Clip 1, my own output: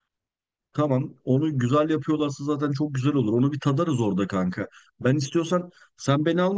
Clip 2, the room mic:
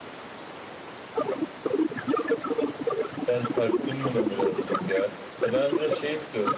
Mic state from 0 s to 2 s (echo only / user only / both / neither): echo only